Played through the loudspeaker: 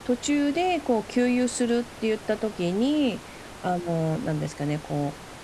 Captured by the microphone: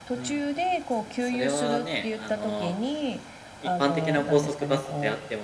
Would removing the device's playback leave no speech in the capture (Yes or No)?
No